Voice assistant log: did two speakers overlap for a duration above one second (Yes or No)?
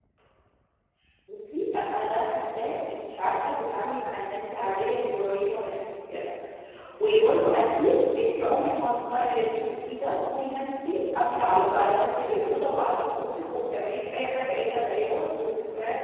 No